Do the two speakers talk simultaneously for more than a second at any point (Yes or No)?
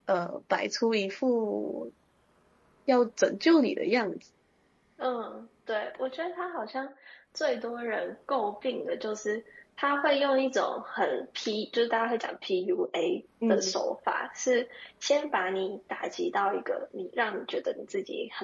No